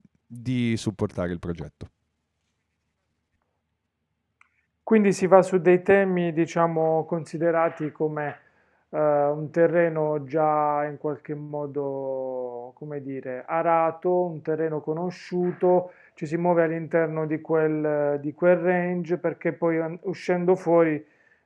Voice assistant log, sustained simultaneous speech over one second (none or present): none